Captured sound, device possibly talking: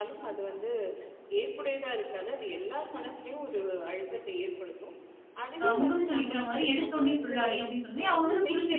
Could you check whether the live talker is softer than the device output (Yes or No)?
No